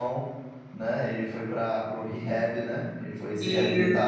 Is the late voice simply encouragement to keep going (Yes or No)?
No